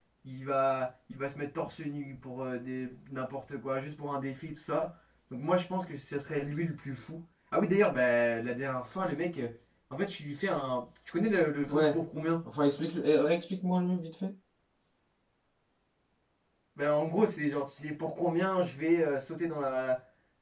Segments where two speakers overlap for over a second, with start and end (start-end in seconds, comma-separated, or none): none